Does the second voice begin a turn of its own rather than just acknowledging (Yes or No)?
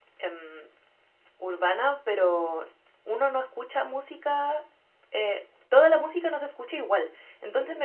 No